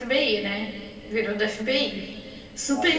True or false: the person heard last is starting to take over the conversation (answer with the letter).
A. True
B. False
A